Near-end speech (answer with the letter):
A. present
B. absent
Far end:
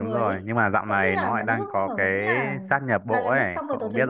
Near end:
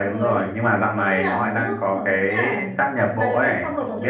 B